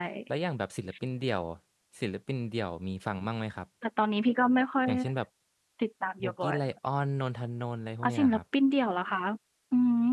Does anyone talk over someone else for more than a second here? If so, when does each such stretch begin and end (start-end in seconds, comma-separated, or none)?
none